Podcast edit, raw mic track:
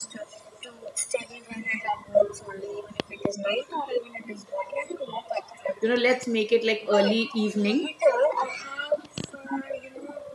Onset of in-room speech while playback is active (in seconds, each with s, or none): 5.8 s